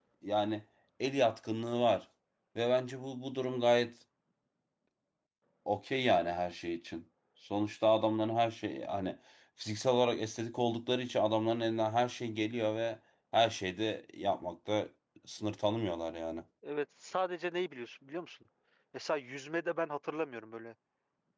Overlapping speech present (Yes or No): No